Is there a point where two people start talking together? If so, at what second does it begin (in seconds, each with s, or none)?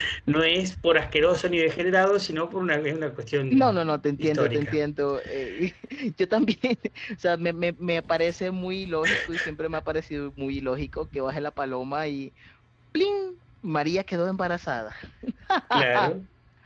3.5 s